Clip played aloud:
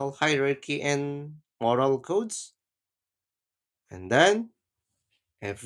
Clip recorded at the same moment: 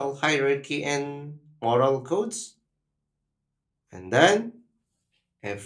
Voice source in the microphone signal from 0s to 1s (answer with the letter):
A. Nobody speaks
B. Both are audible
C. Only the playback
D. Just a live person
C